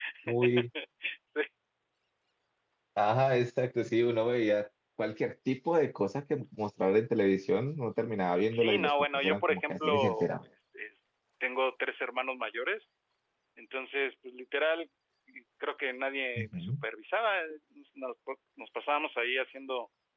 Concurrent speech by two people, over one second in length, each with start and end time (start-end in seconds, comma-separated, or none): 8.5-10.3